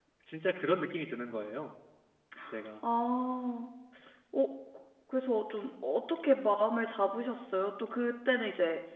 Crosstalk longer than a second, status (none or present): none